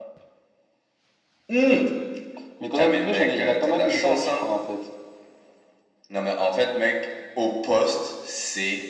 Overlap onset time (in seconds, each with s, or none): 2.8 s